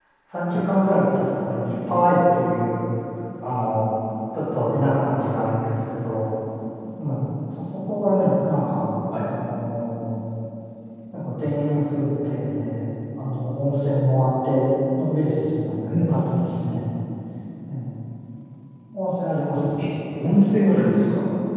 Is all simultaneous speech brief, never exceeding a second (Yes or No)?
Yes